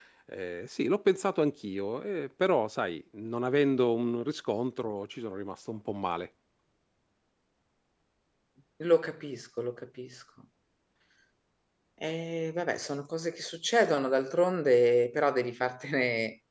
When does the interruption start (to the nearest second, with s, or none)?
none